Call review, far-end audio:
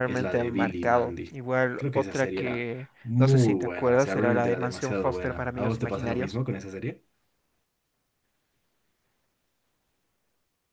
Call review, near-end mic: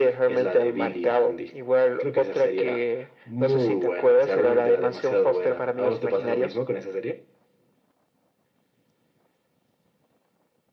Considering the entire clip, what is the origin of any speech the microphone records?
echo only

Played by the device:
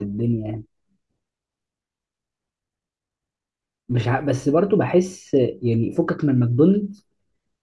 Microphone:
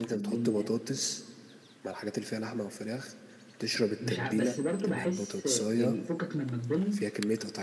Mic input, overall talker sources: both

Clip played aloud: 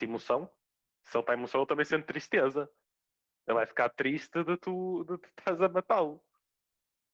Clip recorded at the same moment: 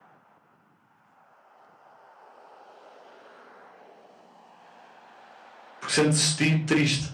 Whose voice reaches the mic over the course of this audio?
user only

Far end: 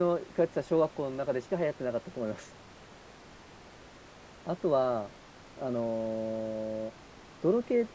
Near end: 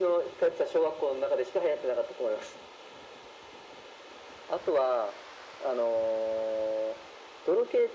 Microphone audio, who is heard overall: echo only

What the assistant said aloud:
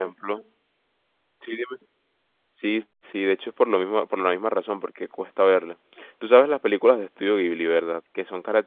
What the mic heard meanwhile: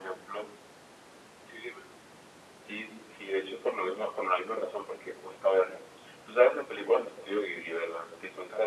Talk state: echo only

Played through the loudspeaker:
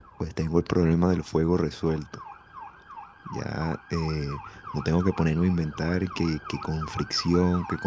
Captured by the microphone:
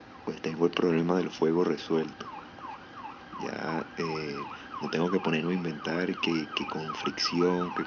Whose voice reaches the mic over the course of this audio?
echo only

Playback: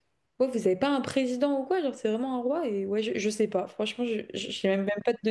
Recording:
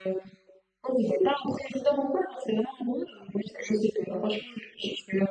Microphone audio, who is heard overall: echo only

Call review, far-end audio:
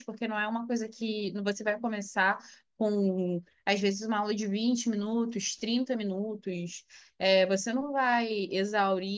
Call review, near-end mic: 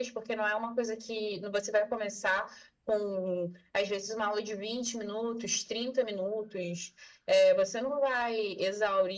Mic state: echo only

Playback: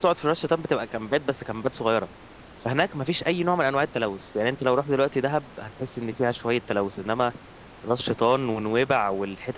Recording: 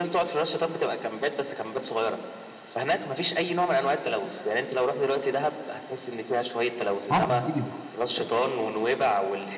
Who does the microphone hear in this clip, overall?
both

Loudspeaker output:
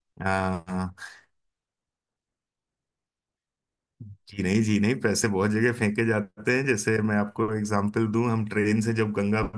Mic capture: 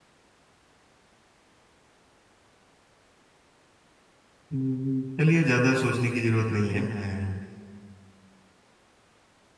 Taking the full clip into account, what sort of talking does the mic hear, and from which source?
user only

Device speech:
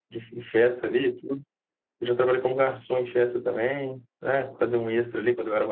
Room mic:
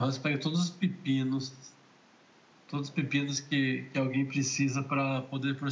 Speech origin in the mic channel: user only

